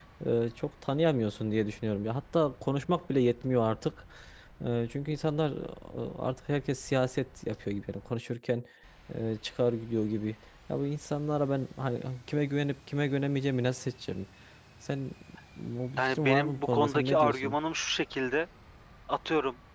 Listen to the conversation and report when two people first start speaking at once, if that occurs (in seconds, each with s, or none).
16.0 s